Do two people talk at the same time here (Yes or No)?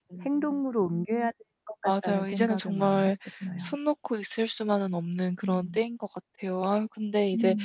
Yes